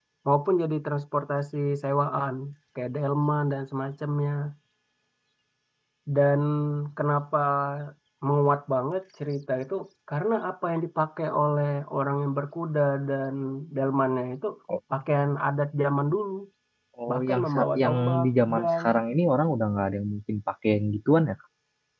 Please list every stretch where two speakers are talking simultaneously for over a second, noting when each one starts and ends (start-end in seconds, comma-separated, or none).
17.1-18.8